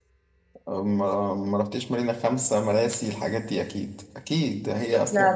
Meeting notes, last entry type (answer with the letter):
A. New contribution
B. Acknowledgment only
B